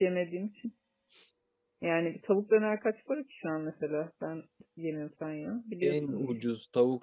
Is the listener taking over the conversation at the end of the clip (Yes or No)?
Yes